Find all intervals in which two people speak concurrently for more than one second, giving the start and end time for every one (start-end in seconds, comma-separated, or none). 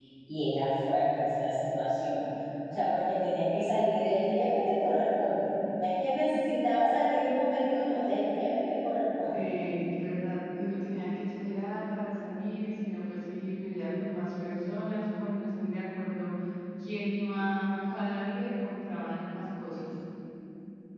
none